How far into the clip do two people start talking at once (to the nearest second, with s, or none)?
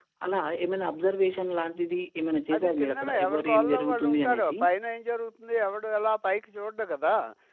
3 s